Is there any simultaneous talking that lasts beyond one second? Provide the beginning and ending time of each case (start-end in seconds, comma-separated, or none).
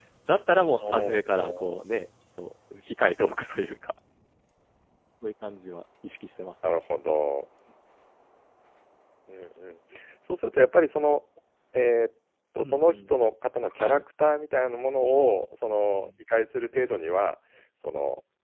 none